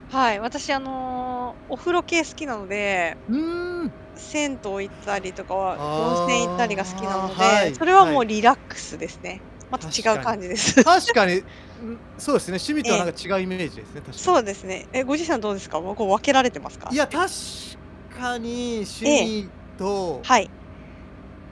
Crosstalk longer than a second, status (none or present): present